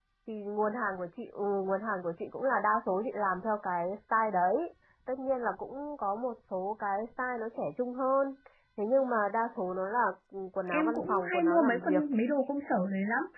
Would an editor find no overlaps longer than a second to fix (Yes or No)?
No